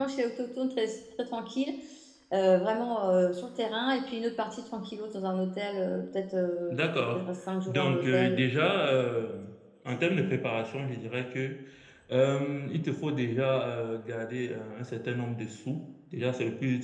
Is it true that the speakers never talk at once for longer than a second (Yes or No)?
No